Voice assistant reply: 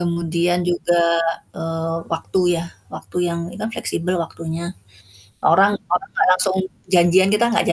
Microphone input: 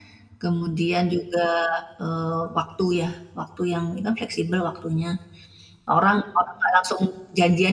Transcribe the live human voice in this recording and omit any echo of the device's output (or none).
none